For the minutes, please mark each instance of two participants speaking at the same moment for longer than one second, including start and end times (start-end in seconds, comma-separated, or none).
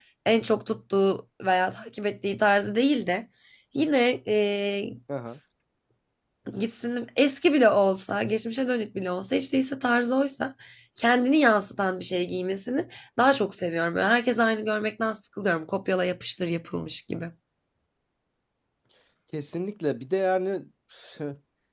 none